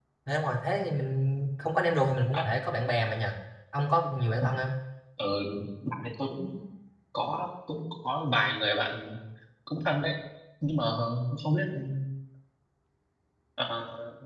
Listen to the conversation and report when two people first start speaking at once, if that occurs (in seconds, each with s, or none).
none